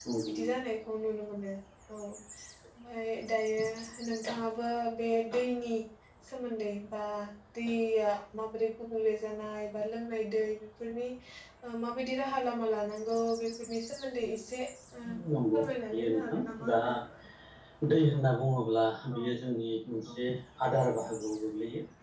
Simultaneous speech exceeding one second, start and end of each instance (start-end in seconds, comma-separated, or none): 15.5-16.8